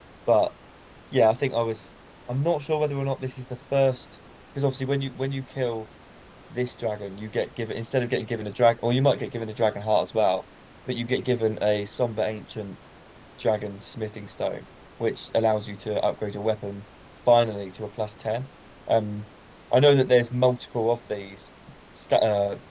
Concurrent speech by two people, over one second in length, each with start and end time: none

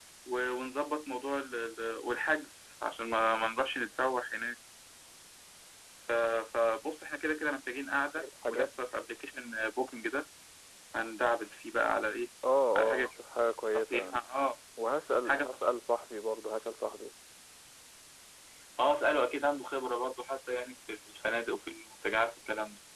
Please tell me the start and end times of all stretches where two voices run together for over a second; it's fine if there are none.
none

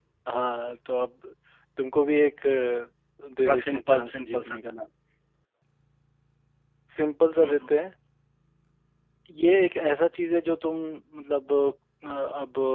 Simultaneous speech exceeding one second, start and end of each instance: 3.5-4.7

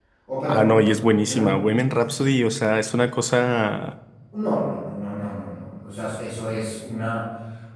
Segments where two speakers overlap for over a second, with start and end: none

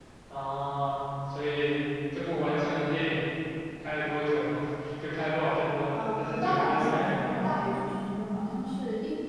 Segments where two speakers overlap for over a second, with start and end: 5.9-7.8

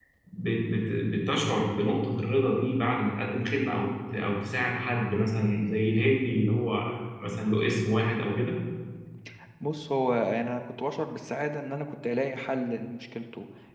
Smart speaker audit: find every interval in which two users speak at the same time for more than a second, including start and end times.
none

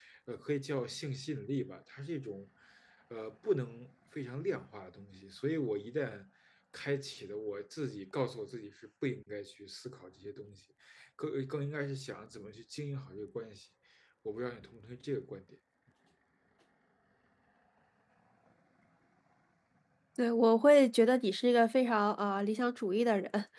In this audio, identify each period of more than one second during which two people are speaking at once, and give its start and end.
none

